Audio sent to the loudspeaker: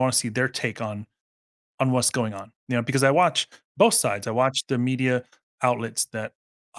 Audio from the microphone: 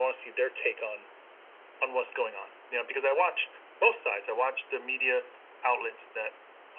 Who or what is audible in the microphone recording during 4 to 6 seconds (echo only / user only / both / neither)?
echo only